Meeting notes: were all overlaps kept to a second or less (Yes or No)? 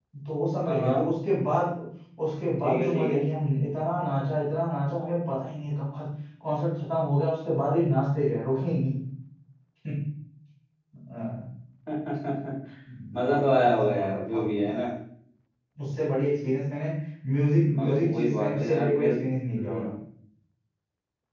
No